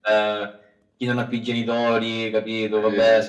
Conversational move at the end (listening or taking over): listening